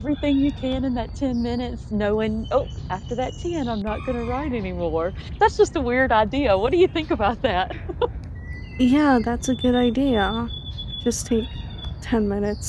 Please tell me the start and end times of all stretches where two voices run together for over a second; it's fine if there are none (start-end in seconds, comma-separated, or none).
none